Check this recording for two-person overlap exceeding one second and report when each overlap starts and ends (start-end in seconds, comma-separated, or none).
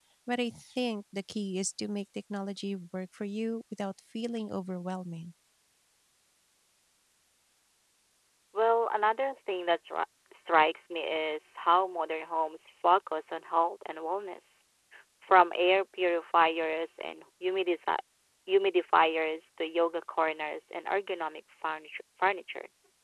none